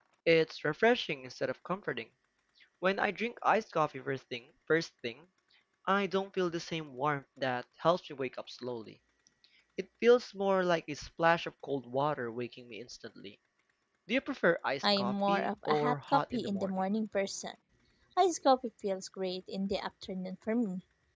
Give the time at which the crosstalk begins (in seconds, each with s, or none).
14.8 s